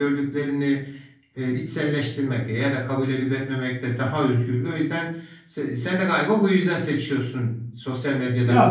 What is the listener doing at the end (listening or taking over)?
taking over